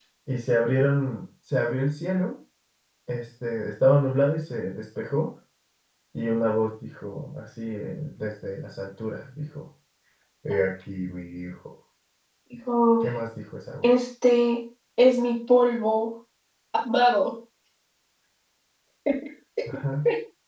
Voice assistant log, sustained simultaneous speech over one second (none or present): none